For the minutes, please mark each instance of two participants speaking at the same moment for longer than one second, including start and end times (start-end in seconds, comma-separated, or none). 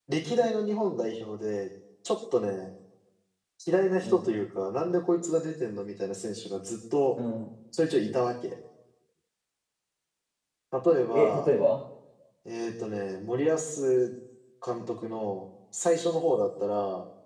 none